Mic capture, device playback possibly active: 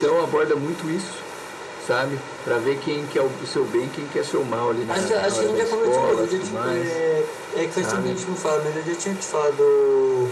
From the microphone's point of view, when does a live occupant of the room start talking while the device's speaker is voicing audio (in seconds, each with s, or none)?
none